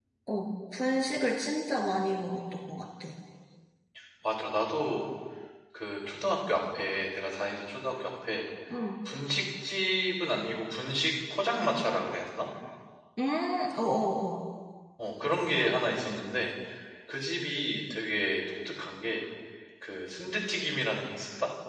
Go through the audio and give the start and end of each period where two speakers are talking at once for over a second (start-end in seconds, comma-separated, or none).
none